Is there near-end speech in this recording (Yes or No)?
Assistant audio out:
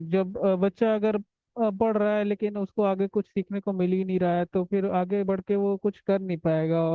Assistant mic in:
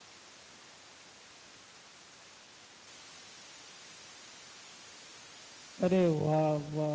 Yes